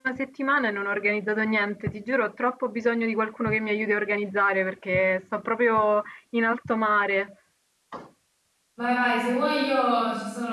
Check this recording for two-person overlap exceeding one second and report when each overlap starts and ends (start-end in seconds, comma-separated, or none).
none